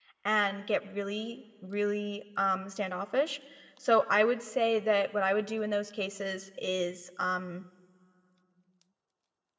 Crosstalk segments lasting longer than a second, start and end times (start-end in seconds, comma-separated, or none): none